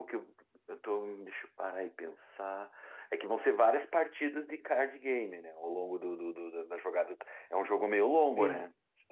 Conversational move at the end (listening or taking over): listening